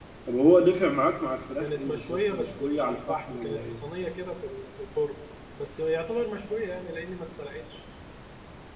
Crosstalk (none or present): present